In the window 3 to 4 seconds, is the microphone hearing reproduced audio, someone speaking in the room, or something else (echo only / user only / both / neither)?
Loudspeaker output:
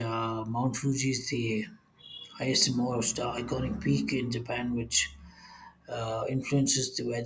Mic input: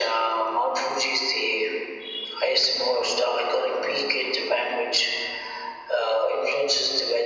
echo only